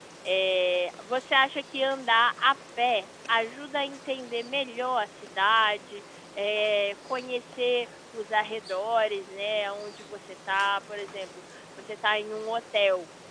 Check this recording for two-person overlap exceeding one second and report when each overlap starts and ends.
none

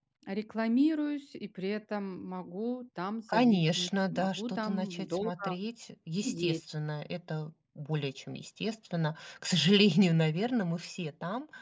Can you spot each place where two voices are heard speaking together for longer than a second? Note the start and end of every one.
3.3-5.3

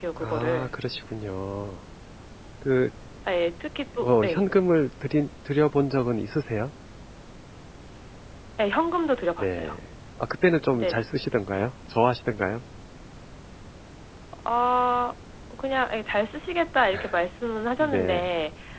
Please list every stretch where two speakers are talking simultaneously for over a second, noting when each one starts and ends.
none

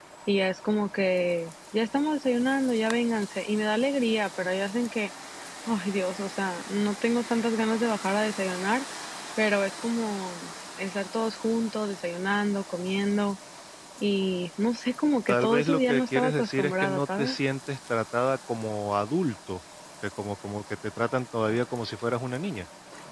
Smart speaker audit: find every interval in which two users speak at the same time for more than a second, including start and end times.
15.3-17.4

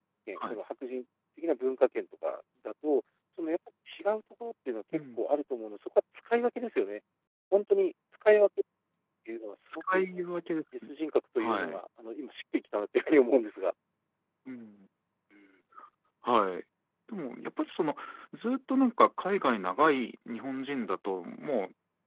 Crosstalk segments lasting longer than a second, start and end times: none

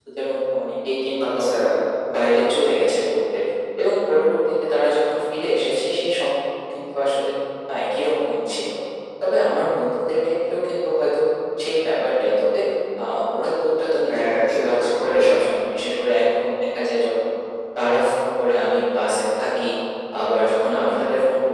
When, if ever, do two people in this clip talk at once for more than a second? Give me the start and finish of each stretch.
14.1-15.3

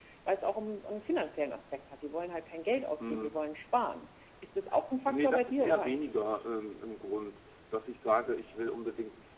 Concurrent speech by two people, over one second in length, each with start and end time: 5.1-6.3

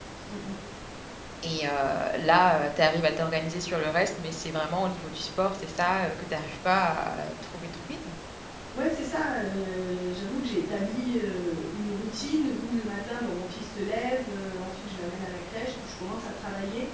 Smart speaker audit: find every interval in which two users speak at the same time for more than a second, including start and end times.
none

